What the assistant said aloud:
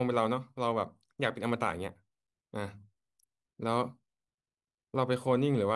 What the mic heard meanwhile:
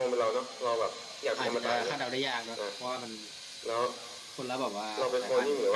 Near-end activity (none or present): present